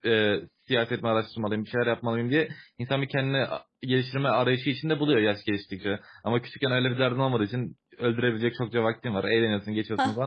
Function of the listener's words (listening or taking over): listening